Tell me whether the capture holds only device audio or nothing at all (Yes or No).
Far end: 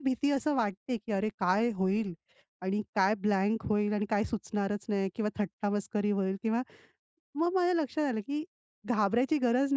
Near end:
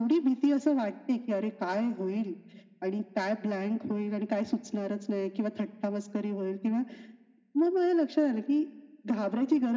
Yes